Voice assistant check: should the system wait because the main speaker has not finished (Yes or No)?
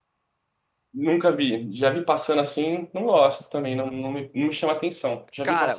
No